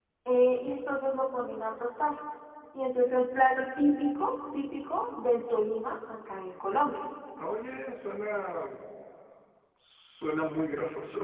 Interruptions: none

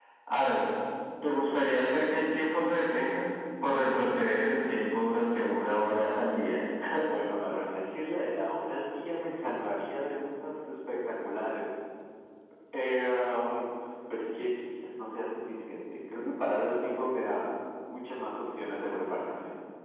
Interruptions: none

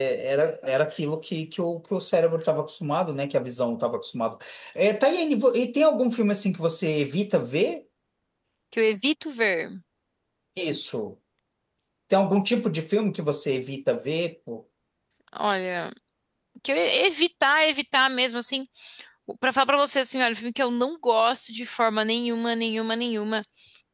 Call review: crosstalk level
none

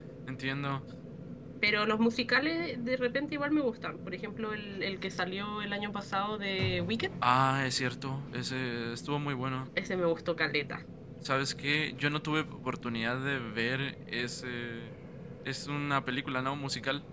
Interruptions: none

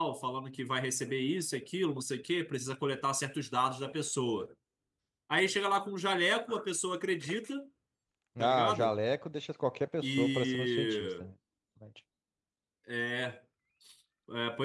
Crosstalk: present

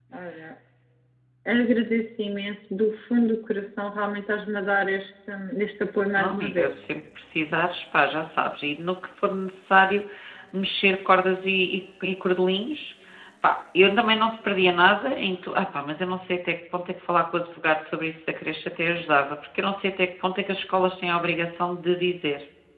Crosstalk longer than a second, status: none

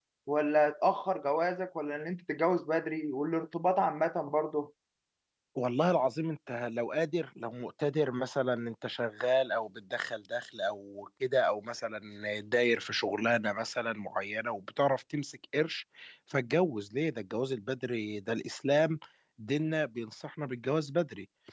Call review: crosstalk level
none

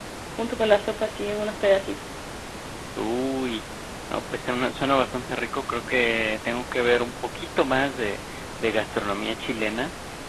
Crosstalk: none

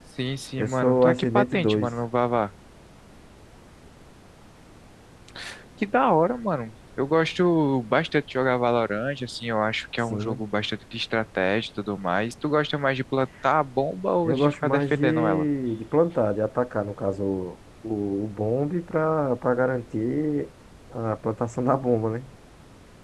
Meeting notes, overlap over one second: present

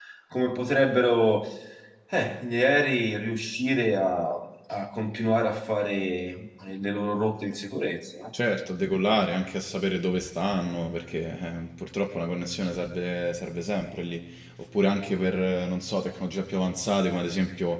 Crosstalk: none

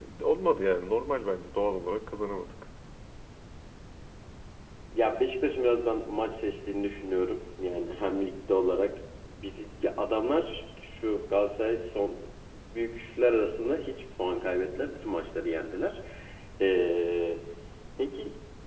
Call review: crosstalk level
none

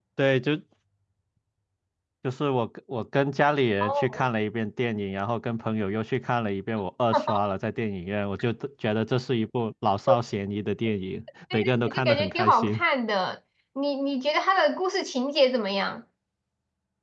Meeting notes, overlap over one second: present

